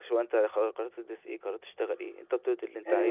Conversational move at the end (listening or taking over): taking over